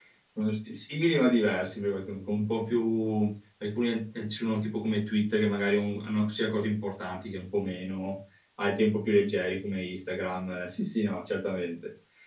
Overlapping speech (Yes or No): No